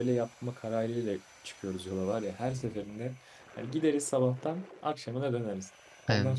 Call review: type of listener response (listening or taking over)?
listening